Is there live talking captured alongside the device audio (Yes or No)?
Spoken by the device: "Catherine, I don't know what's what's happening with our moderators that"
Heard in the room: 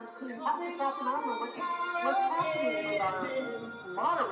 Yes